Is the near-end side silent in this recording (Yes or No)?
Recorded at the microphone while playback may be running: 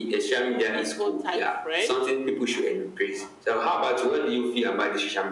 Yes